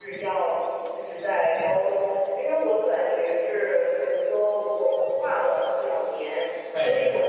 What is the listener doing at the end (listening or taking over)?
listening